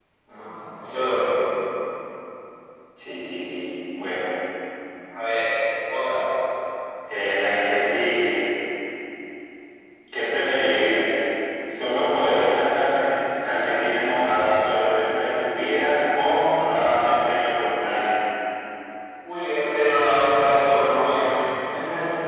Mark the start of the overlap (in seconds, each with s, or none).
none